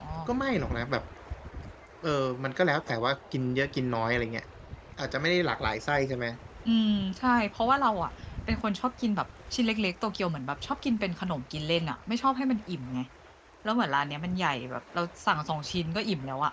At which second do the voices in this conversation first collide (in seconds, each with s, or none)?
none